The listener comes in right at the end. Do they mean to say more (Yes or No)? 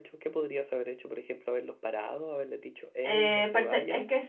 Yes